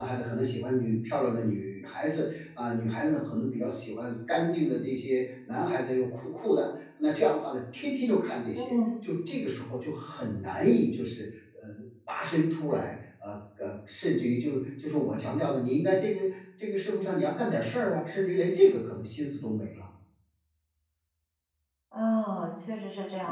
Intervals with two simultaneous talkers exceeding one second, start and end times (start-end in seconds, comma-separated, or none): none